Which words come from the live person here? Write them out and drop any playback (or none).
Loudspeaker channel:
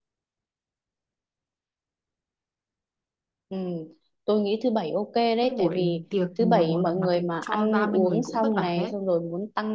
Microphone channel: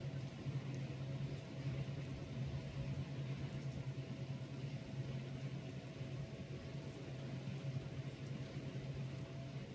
none